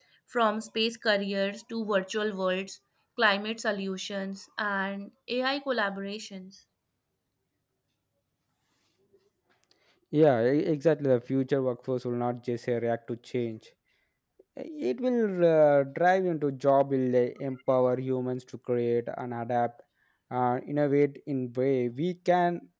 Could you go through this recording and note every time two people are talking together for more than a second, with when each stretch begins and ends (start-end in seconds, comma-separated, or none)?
none